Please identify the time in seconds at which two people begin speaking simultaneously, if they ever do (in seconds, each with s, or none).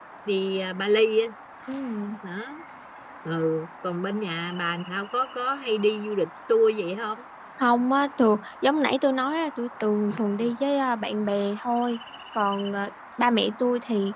none